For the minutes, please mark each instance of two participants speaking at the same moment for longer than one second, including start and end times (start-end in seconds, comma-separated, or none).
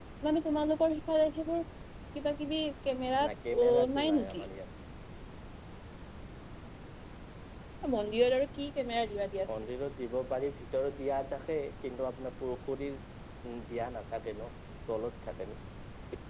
3.3-4.5